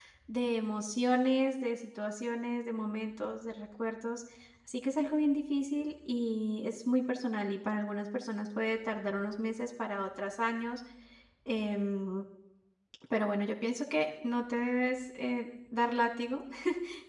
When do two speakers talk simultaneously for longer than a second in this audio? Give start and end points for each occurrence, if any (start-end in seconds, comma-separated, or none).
none